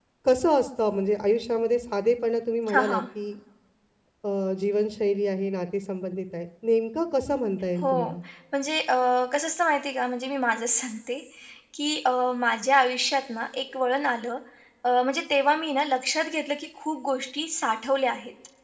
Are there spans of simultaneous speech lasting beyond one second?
No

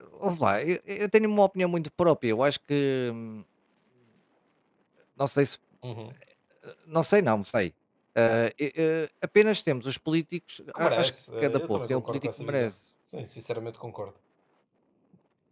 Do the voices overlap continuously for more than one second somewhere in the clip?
Yes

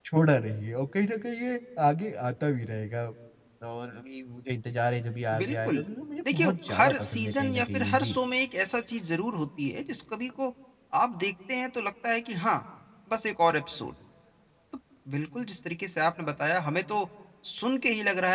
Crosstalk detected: Yes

